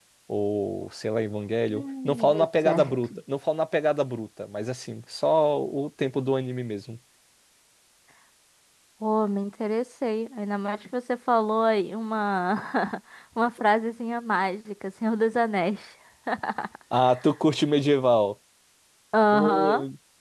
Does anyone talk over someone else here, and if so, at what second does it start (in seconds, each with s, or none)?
1.7 s